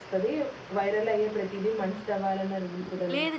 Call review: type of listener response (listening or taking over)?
taking over